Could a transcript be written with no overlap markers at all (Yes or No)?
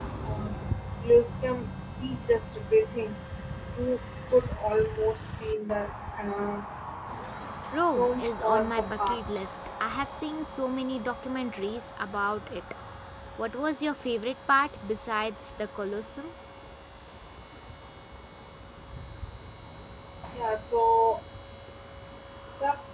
No